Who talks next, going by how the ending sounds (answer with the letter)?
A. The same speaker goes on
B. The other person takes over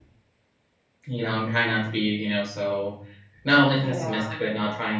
A